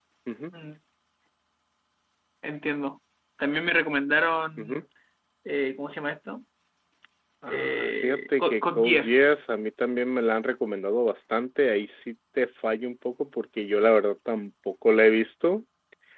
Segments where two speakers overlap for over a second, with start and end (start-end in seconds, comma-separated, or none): 7.5-9.2